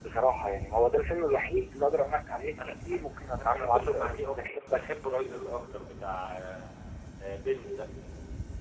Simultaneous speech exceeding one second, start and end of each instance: 3.4-5.0

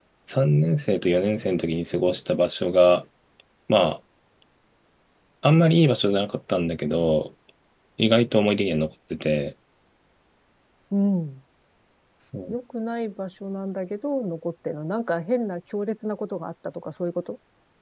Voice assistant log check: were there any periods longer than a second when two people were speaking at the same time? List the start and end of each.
none

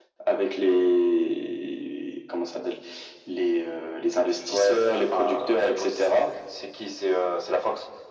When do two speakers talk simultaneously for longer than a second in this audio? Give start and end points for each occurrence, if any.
4.2-6.3

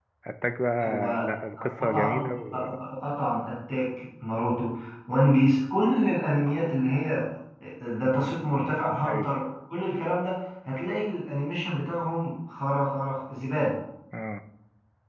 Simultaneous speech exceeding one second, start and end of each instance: 0.8-2.3

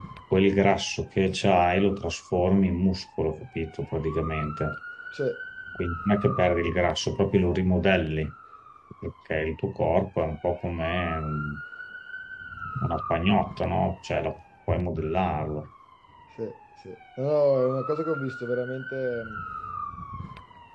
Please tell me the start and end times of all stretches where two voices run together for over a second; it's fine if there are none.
none

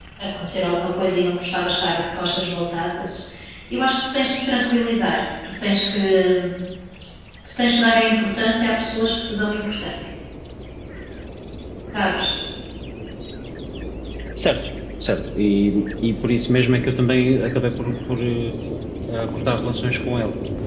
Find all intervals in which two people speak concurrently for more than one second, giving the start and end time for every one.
none

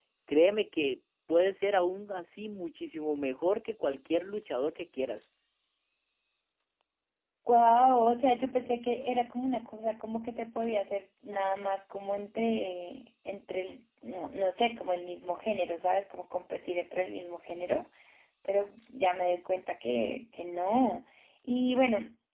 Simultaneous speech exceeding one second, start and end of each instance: none

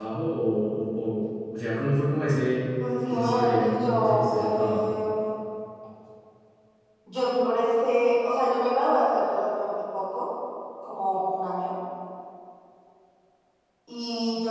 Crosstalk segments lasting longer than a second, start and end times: 3.1-4.9

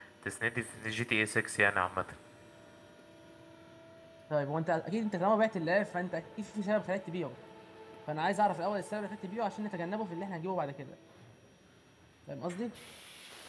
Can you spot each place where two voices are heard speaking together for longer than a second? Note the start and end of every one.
none

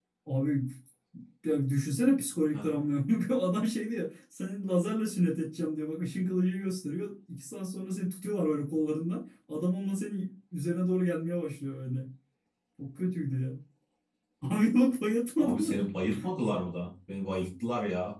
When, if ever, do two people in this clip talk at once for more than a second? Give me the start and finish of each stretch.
none

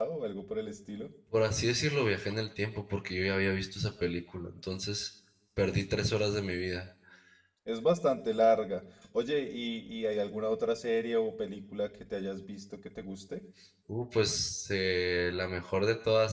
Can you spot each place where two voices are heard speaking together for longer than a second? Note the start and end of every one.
none

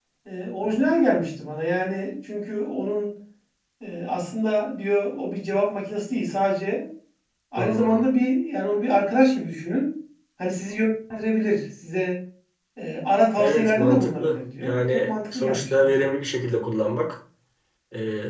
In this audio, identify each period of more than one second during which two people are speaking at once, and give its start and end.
13.4-16.0

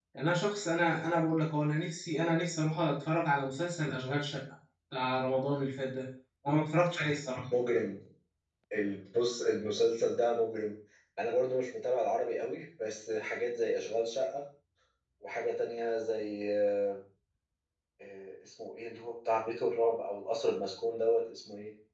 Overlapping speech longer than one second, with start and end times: none

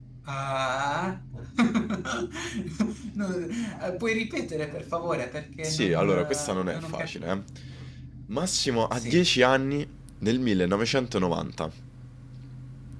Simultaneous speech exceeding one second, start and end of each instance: 5.6-7.1

